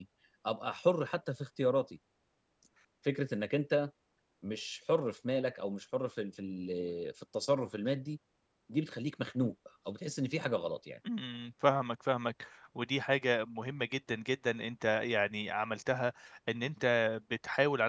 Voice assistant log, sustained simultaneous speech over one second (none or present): none